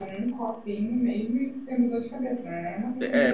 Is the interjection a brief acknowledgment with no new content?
No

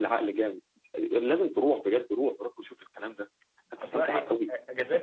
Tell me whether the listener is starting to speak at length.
Yes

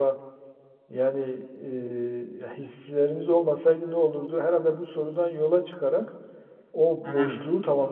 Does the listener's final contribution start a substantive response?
No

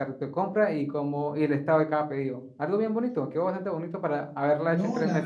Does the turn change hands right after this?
Yes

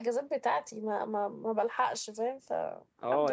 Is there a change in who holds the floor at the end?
Yes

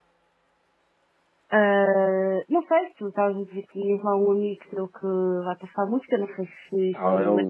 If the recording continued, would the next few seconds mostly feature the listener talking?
Yes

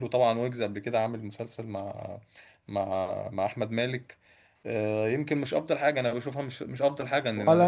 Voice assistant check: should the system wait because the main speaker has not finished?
No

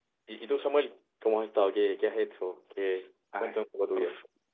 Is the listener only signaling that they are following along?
No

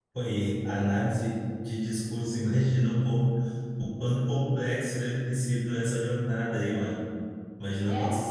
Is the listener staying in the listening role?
Yes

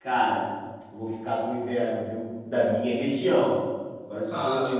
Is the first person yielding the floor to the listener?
No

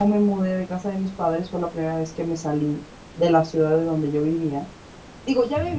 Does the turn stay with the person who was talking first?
Yes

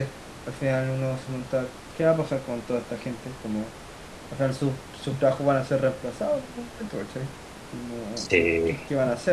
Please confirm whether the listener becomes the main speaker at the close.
No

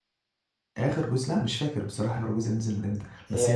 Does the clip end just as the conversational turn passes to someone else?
No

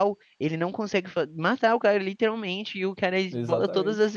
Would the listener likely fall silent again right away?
Yes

